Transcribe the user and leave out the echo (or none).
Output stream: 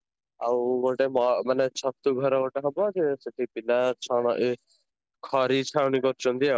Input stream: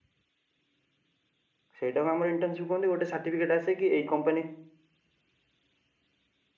ସେଇଟାକୁ ଆମର ଇଣ୍ଟର୍ନସିପ୍ କହନ୍ତି। ଗୋଟେ ସାର୍ଟିଫିକେଟ ଆସେ ଏଇ କମ୍ପାନୀ